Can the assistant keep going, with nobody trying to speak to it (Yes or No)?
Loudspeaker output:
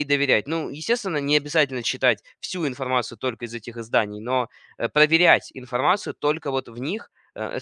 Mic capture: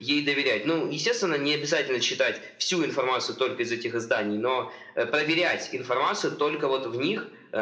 Yes